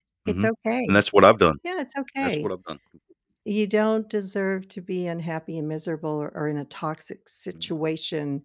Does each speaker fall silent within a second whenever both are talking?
Yes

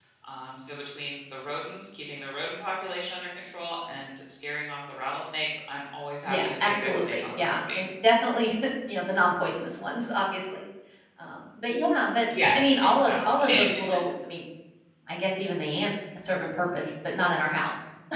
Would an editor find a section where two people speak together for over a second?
Yes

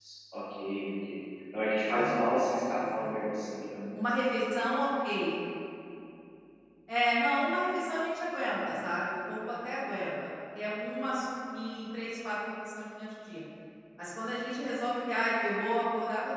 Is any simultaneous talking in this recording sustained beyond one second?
No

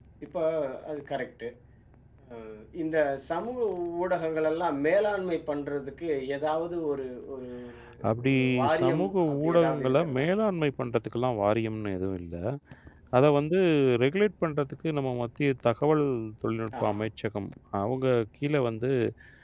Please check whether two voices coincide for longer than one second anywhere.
Yes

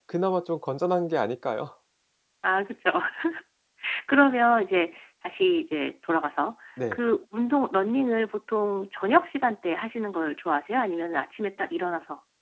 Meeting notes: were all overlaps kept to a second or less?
Yes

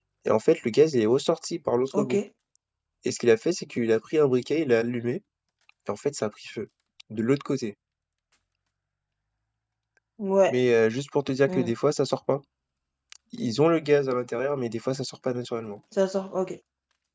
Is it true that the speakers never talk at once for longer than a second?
Yes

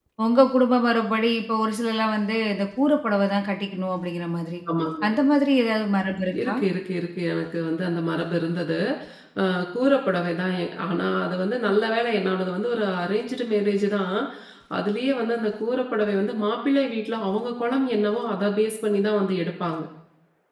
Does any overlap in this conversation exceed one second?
No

